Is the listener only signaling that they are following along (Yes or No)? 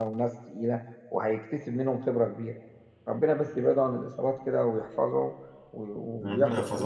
No